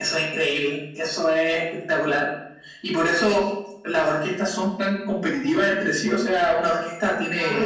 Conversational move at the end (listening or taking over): listening